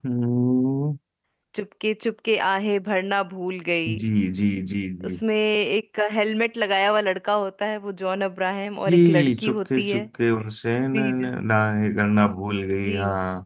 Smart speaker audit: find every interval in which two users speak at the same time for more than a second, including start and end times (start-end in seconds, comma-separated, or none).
8.8-10.1